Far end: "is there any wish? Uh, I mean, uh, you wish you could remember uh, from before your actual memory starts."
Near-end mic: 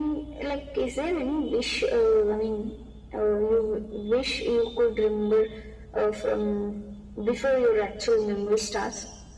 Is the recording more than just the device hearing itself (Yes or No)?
No